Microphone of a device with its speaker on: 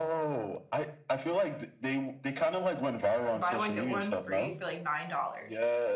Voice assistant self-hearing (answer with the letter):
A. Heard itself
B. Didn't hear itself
A